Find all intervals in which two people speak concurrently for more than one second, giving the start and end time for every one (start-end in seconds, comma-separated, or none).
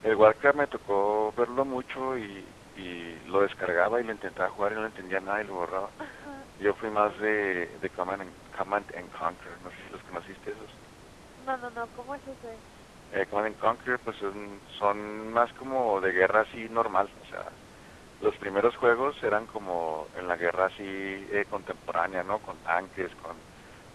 none